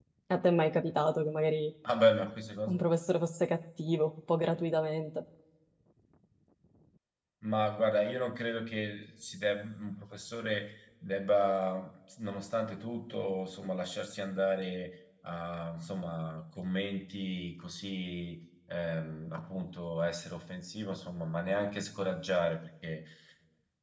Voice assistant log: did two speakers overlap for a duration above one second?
No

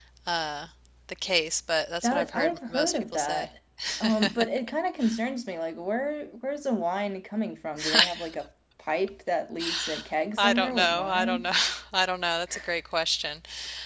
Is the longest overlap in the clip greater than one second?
Yes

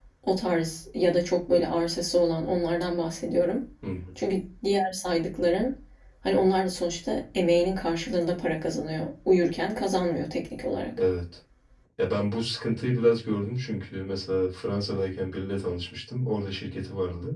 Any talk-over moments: No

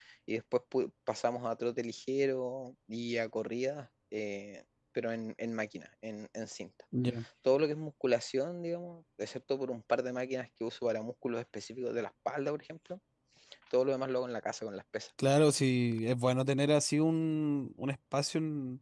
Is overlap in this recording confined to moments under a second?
Yes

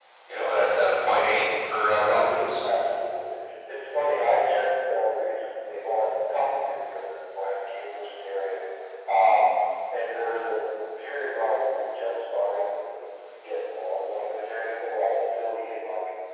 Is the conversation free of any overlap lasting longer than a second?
Yes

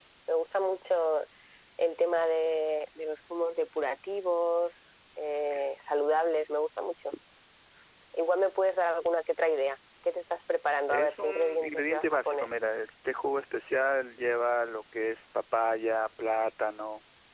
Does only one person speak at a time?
No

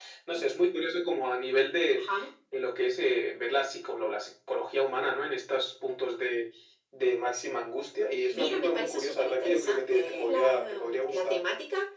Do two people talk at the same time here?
Yes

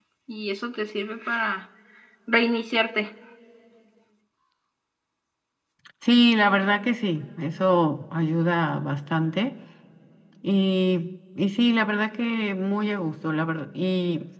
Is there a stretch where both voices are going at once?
No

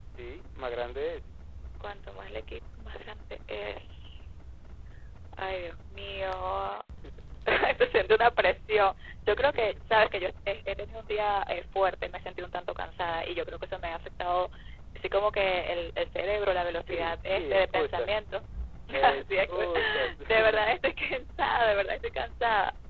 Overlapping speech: Yes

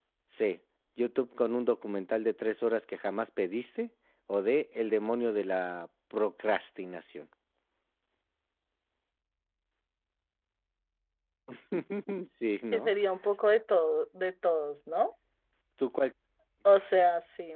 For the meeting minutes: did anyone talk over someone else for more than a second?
No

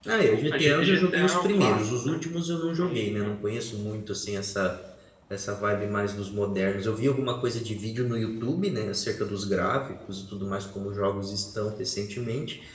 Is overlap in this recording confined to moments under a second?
No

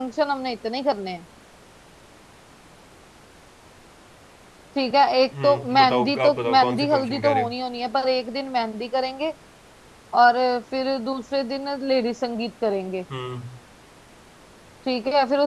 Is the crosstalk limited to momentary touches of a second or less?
No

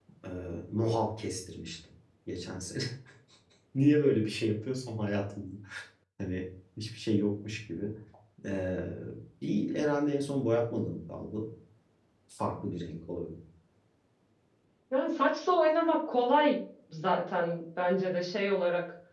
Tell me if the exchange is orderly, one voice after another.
Yes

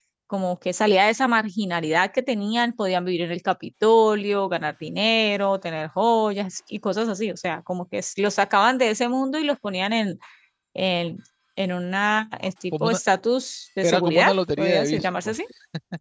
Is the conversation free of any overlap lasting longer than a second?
No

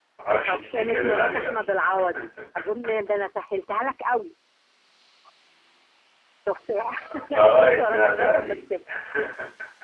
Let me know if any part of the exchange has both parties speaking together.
Yes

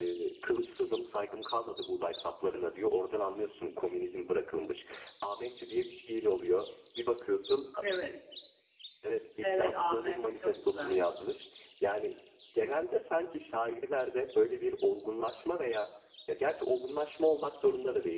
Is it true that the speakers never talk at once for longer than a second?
No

